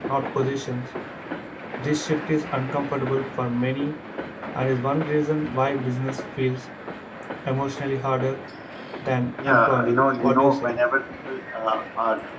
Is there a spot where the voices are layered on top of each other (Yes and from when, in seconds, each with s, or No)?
Yes, from 9.5 s